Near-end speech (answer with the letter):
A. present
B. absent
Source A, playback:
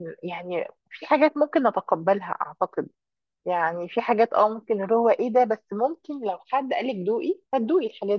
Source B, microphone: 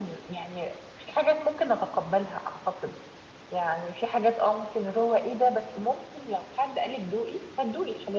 B